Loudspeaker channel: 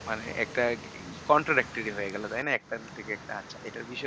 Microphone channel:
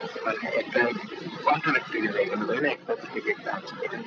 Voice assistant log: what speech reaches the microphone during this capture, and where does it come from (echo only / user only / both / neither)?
both